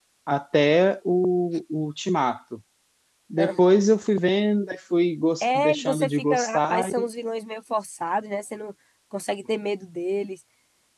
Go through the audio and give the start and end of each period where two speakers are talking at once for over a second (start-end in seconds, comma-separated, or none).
5.4-6.9